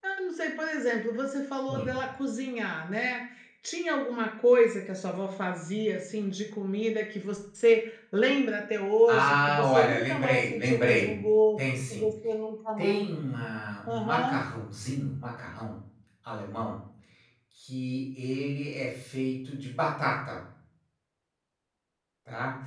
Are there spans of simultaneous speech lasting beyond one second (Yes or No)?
Yes